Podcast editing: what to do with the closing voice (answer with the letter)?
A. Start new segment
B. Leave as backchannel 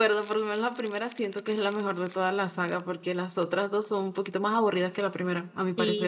A